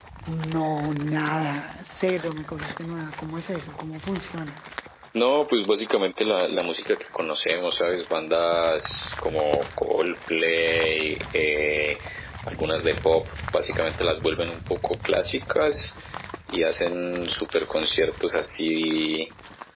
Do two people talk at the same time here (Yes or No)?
No